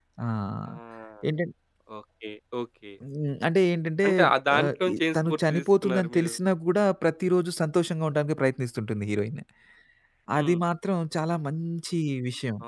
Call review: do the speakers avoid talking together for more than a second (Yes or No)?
No